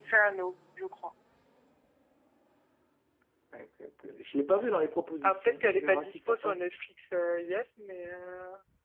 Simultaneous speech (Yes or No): Yes